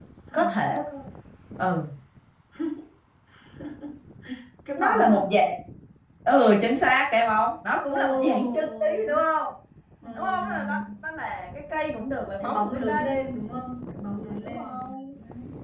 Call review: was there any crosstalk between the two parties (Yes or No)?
Yes